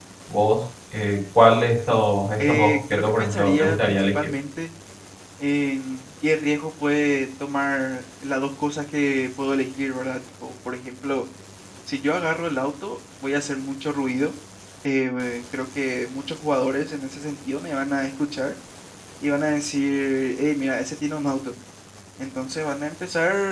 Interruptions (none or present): present